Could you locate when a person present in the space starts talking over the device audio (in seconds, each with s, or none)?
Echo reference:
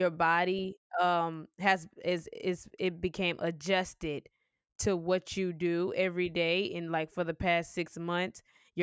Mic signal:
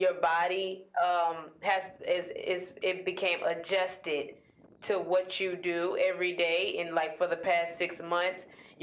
none